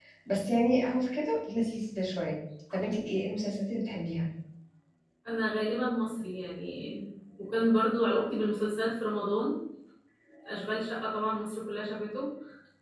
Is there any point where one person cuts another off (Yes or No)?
No